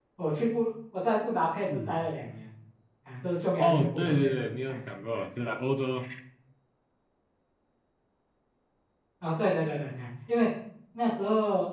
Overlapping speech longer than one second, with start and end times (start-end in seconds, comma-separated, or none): 3.5-4.8